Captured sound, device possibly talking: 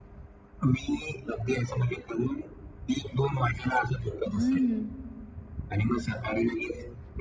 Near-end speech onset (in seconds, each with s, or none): 4.3 s